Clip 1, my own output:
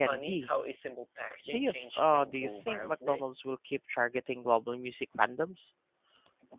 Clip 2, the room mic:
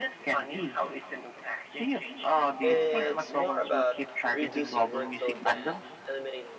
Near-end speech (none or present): present